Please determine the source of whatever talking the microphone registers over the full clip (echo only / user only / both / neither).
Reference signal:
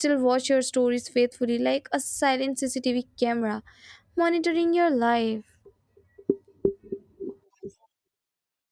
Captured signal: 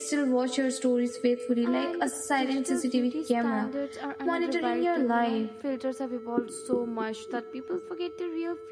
both